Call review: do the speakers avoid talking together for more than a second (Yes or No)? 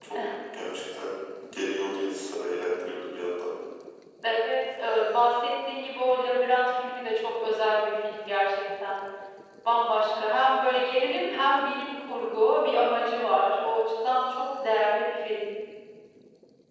Yes